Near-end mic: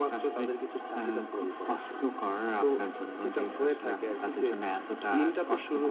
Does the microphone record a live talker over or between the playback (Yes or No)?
No